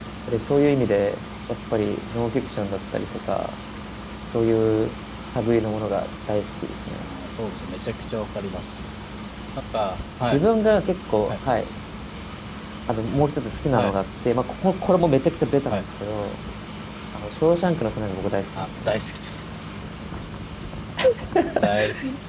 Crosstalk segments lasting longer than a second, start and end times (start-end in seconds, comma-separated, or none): none